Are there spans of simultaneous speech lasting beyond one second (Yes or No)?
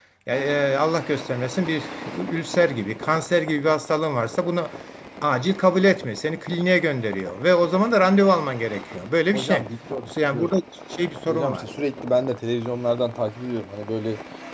No